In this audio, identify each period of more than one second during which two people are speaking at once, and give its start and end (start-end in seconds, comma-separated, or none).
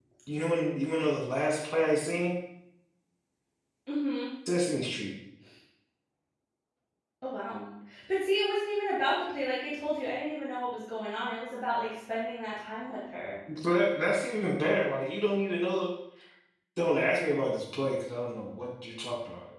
none